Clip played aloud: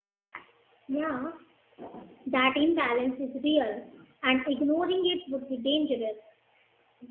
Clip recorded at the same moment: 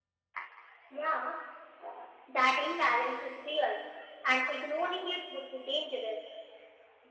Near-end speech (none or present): none